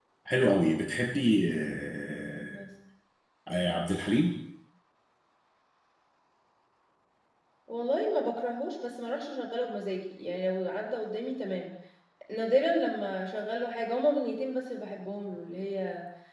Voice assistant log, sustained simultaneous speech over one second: none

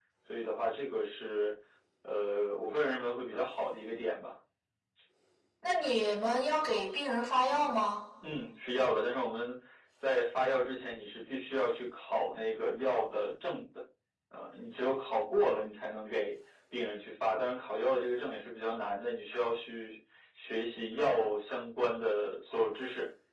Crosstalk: none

